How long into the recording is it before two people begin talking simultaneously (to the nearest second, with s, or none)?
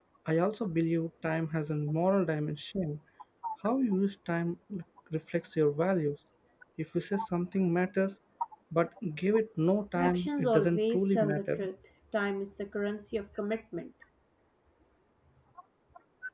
10 s